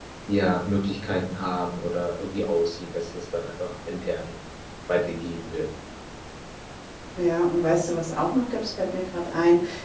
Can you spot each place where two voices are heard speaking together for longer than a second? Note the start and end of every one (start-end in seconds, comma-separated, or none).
none